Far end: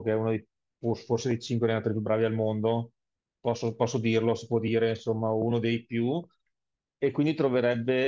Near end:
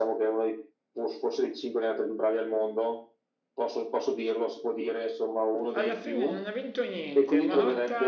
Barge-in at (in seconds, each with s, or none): 5.7 s